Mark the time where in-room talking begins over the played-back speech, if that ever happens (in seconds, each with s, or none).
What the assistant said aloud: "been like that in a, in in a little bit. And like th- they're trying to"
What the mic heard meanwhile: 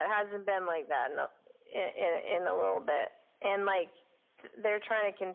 none